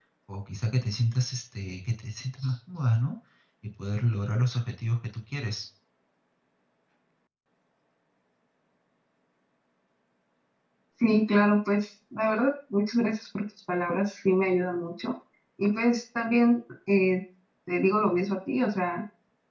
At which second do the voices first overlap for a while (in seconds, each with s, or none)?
none